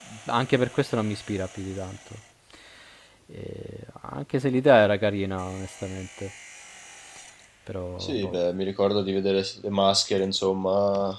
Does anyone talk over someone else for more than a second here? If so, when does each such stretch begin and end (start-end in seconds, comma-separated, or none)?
none